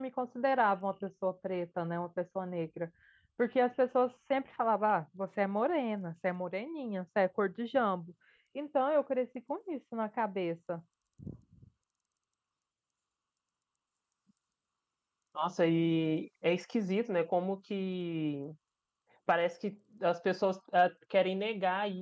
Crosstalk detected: No

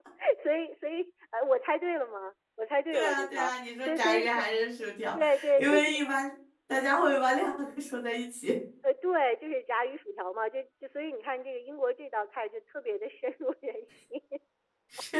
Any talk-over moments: Yes, from 2.9 s

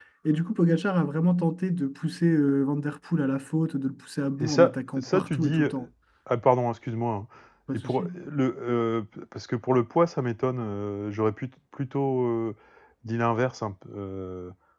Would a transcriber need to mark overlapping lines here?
Yes, from 4.4 s

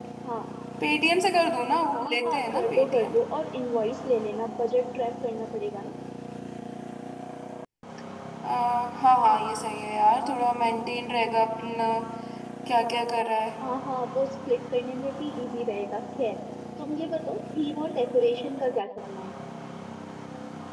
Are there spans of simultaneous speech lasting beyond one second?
Yes, from 1.9 s

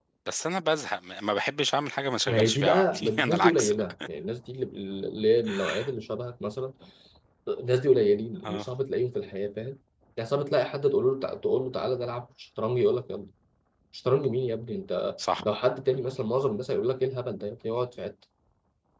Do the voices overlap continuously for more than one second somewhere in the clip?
Yes, from 2.3 s

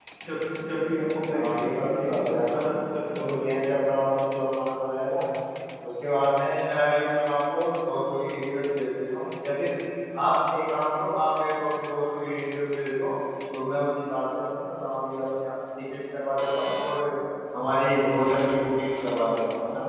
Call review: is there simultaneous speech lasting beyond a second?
Yes, from 1.3 s

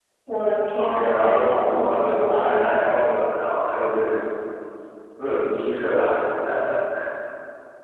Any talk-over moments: Yes, from 0.7 s

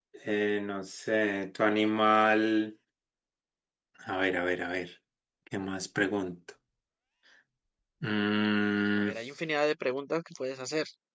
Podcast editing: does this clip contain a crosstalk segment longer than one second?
No

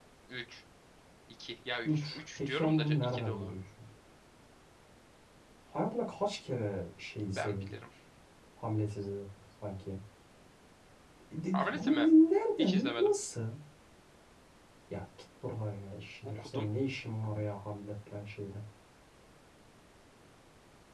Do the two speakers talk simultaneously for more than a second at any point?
Yes, from 1.9 s

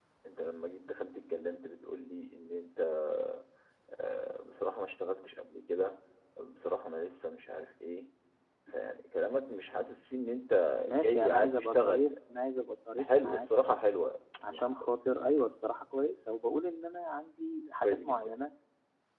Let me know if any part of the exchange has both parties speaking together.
Yes, from 10.8 s

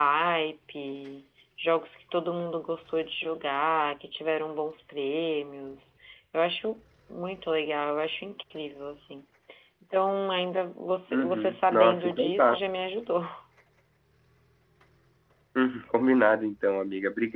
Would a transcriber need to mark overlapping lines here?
Yes, from 11.1 s

